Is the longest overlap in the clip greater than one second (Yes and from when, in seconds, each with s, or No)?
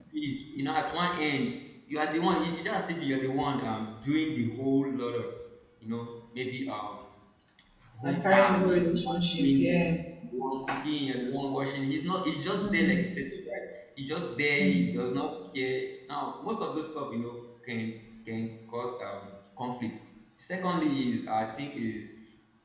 Yes, from 8.0 s